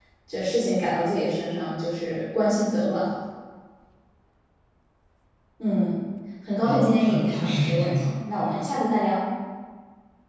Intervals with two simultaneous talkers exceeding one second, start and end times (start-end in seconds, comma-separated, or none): 6.6-8.2